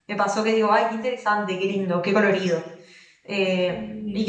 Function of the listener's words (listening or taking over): listening